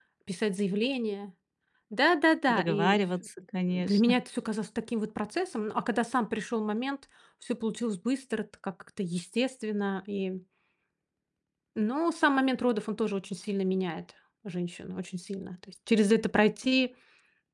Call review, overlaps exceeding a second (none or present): none